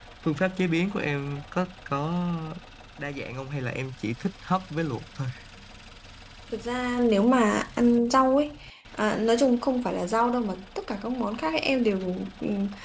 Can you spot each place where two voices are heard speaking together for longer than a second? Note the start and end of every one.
none

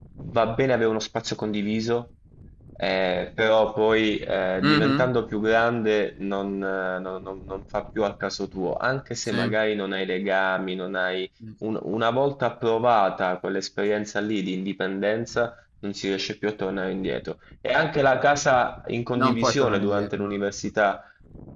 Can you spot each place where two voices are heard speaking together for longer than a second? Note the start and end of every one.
19.2-20.5

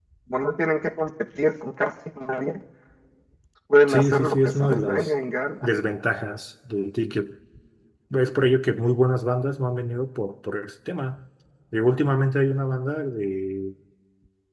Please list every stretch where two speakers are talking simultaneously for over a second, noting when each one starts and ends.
3.9-5.1

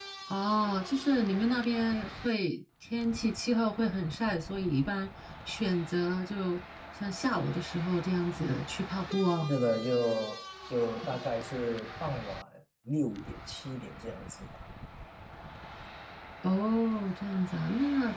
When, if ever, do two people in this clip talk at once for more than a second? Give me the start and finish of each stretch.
none

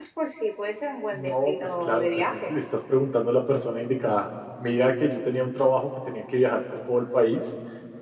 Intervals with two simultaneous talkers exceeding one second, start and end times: 1.1-2.5

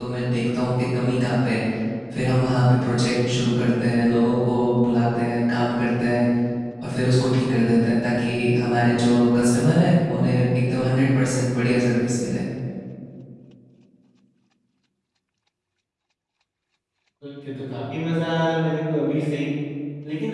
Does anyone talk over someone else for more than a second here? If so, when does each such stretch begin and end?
none

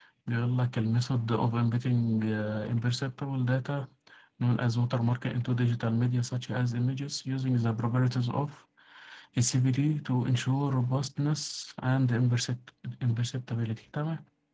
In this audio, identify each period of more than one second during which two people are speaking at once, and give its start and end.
none

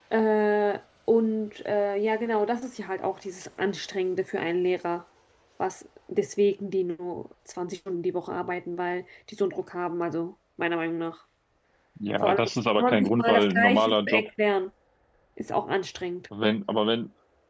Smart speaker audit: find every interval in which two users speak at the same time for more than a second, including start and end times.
12.8-14.2

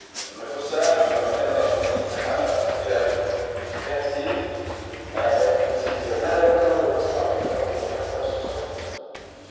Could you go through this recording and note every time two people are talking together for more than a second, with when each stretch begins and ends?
none

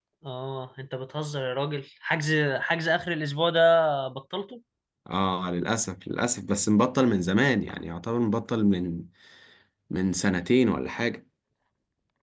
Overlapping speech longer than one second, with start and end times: none

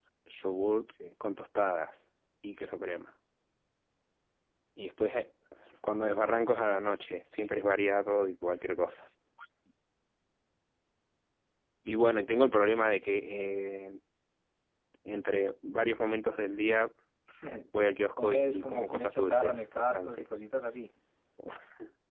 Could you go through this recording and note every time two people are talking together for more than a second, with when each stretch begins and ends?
18.1-20.2

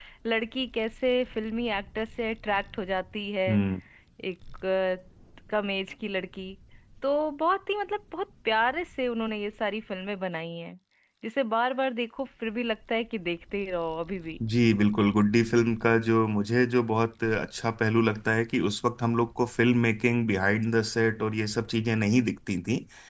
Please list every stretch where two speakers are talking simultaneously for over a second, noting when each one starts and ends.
none

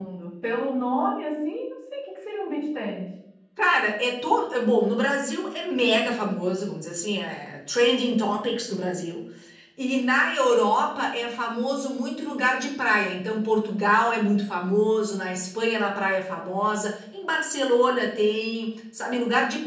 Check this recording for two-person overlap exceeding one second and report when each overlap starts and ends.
none

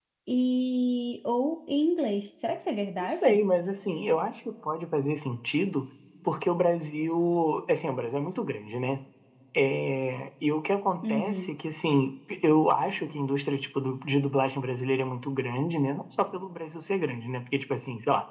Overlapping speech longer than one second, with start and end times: none

